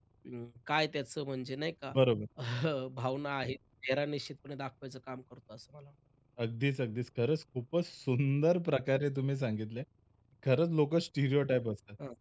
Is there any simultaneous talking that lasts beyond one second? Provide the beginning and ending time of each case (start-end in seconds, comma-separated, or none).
none